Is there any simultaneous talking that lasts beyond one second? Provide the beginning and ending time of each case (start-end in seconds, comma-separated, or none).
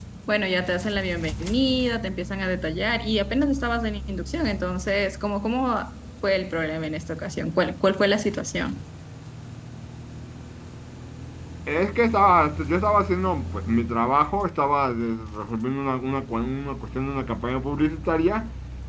none